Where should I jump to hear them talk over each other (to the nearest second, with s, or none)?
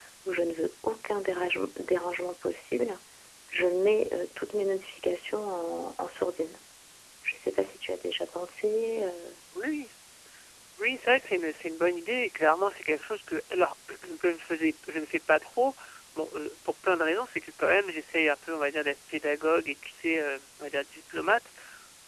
none